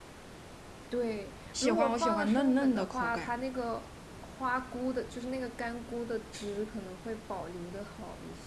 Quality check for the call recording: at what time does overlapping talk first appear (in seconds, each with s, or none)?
1.5 s